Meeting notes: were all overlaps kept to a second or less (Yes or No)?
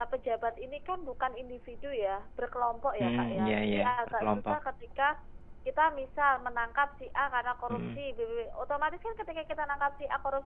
No